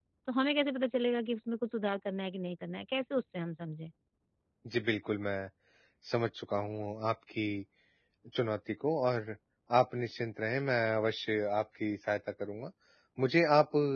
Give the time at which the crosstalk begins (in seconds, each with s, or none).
none